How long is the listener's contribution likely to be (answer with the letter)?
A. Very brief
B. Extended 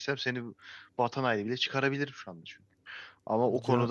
A